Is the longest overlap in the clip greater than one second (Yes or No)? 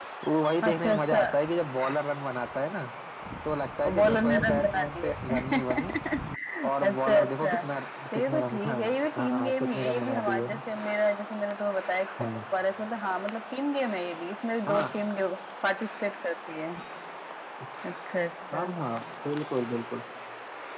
Yes